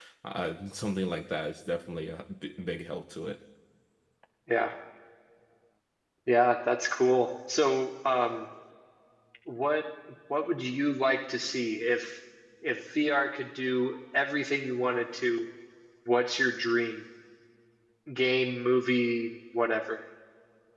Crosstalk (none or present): none